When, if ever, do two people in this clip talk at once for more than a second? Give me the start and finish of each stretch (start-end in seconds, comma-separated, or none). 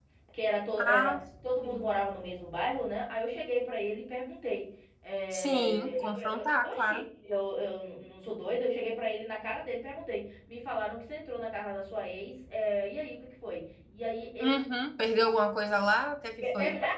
5.3-7.0